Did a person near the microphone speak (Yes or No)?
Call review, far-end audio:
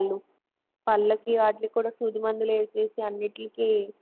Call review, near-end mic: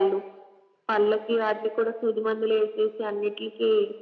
No